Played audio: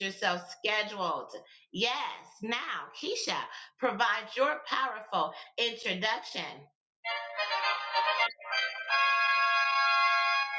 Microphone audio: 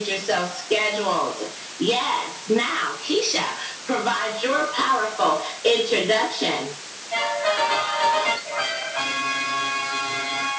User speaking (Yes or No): No